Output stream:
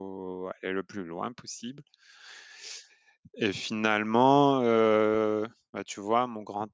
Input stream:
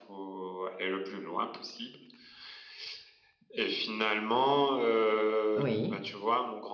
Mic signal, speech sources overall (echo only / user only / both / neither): both